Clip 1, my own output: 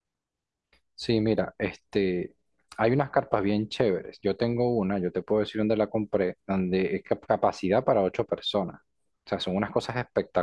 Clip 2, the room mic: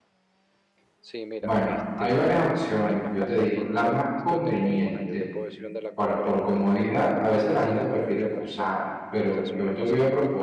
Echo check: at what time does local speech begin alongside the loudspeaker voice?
1 s

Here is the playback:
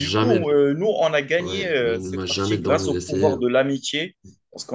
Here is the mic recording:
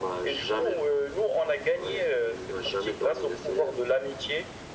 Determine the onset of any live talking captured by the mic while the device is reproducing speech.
none

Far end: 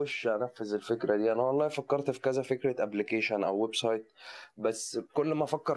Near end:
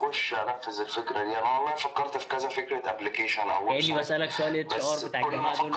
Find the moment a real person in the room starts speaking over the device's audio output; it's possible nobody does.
4 s

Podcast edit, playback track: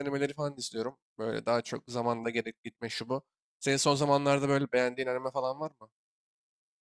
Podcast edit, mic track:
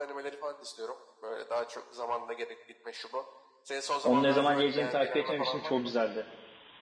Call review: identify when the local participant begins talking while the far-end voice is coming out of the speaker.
4 s

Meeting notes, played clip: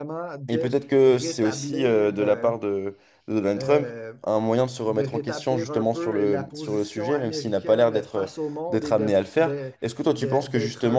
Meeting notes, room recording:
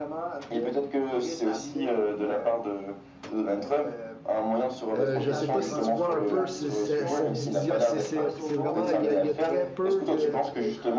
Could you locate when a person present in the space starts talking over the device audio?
5 s

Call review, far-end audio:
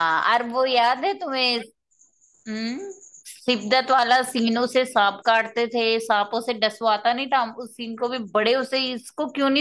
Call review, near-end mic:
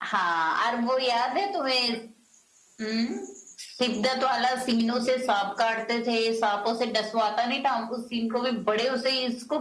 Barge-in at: none

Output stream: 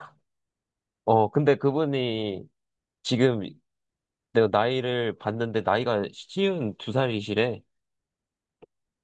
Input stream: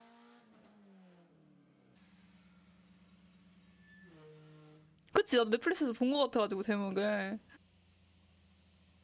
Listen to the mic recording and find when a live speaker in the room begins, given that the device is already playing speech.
5 s

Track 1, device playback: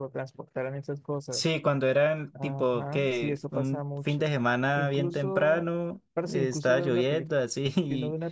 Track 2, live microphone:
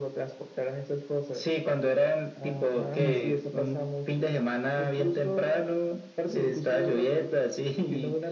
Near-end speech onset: 3 s

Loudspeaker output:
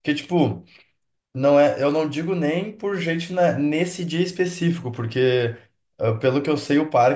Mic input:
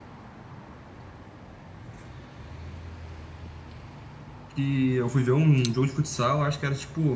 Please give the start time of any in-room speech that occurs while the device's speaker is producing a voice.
4 s

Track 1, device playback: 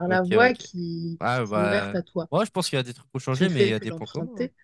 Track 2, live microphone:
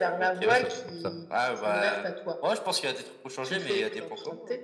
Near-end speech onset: 0 s

